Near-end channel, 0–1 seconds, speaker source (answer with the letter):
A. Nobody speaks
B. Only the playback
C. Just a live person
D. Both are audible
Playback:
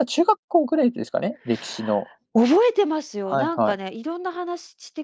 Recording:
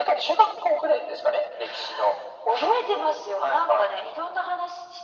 B